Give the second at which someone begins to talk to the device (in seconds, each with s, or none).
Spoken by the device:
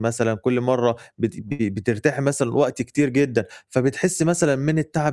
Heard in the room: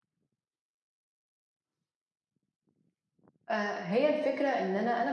3.5 s